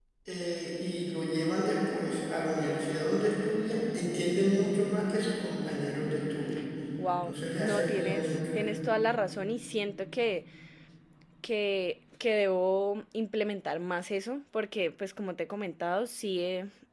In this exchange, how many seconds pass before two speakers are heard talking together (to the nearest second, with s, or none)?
7 s